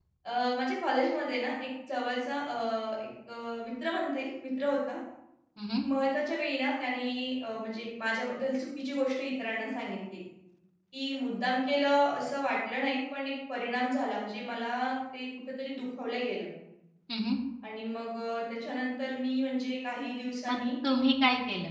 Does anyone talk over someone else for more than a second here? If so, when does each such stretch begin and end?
none

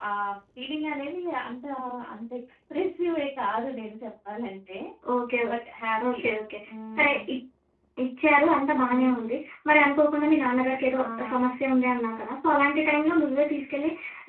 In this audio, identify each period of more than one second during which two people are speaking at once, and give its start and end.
none

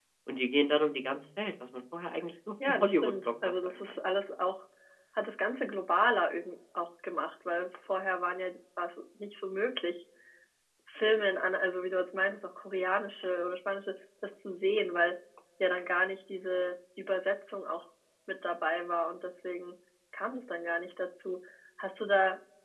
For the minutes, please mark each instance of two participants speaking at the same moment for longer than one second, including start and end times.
2.7-3.9

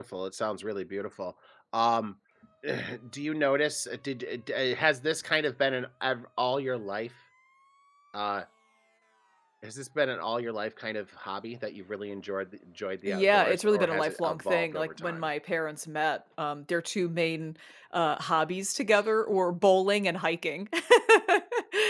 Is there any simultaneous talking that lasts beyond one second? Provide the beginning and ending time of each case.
13.1-15.3

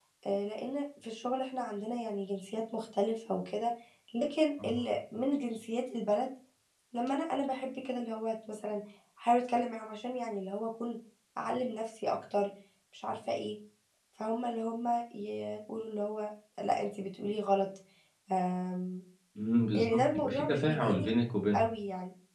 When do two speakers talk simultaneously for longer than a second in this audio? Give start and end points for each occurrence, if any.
19.7-21.1

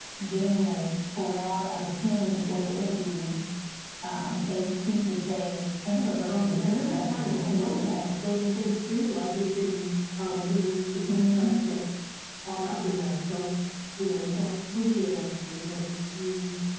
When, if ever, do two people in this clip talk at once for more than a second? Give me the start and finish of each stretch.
6.1-7.6

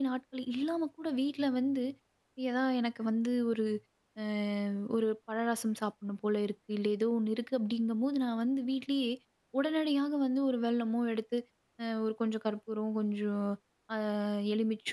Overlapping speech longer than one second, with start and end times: none

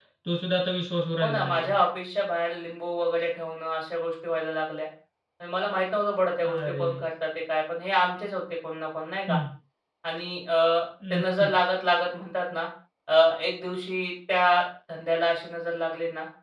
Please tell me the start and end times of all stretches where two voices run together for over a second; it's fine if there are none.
none

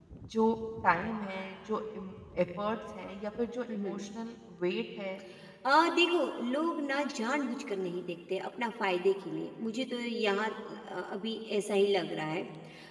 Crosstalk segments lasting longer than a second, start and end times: none

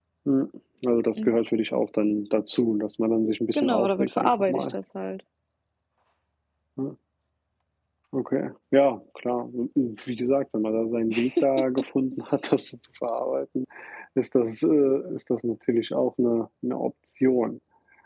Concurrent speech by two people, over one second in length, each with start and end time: 3.5-4.7

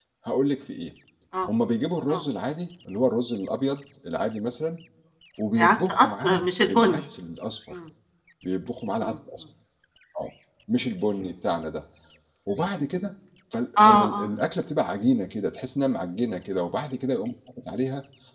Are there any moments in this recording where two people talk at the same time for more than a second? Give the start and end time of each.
5.6-7.0

